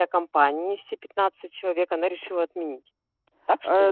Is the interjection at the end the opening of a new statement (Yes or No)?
Yes